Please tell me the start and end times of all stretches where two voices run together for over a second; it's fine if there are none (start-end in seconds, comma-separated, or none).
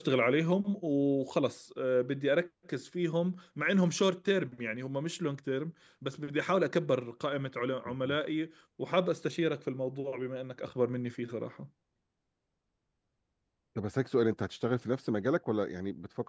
none